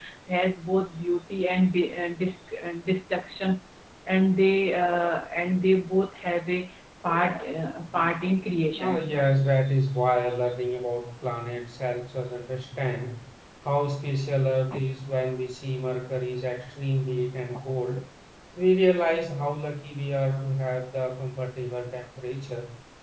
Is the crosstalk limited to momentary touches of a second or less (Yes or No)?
Yes